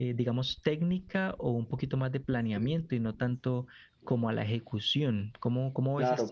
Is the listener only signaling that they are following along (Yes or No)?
No